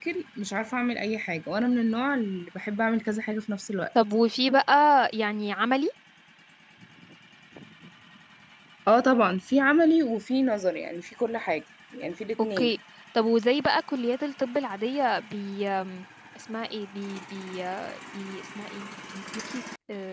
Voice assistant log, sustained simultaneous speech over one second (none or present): none